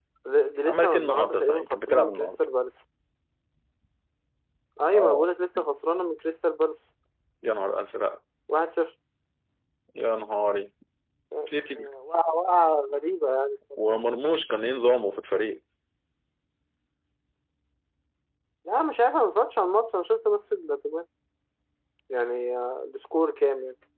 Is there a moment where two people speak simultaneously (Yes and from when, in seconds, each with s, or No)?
Yes, from 0.7 s